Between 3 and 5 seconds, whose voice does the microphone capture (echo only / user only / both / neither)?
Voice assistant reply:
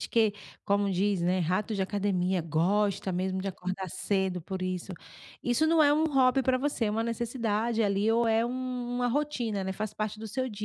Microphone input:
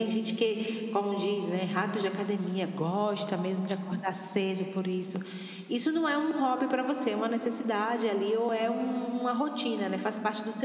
echo only